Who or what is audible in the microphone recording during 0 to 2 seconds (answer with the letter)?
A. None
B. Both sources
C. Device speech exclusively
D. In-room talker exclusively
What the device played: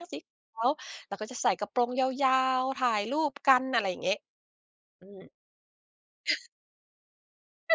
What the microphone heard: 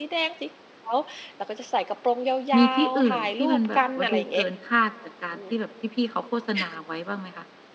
C